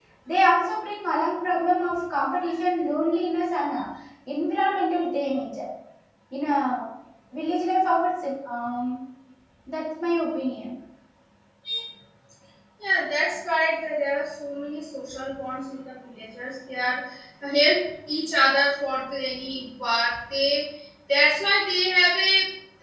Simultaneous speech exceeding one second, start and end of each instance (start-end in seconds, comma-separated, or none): none